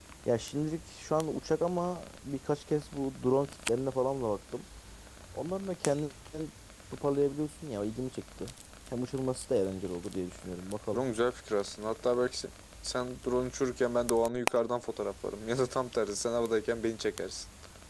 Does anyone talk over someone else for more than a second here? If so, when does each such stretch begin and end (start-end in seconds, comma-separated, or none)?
none